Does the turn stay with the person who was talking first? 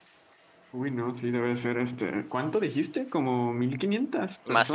No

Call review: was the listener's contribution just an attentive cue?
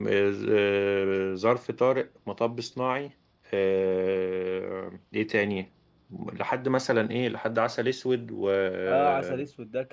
No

